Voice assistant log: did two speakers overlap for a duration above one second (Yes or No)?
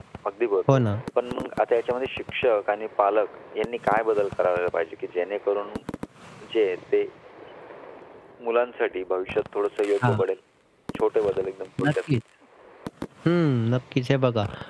No